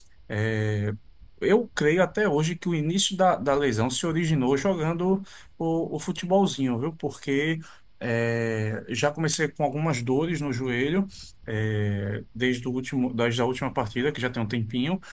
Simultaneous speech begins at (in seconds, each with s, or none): none